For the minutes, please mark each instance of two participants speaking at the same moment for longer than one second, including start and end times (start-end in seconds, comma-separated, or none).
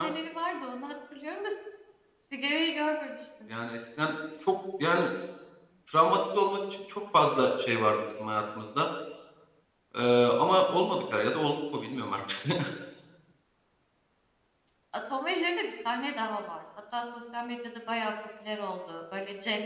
none